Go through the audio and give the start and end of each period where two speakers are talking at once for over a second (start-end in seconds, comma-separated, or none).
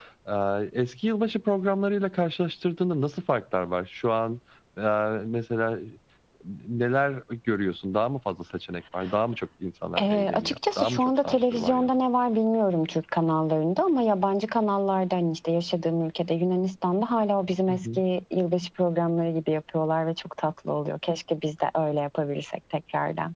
10.0-12.0